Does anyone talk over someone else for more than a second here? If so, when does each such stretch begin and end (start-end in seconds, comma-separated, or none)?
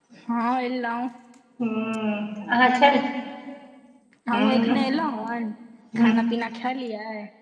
none